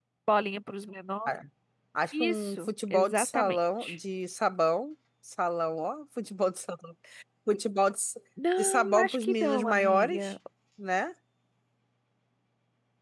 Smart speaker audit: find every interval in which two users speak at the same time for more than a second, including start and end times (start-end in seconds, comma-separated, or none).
2.2-4.0, 8.6-10.3